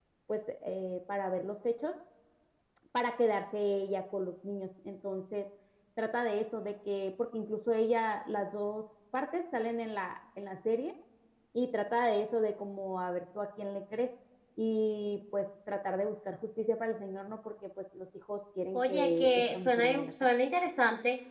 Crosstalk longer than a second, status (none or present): present